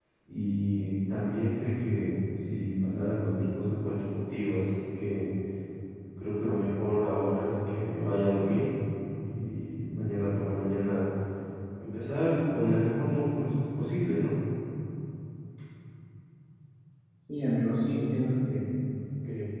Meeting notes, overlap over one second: none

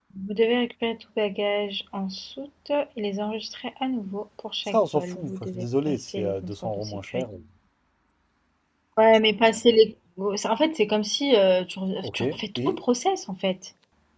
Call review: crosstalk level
present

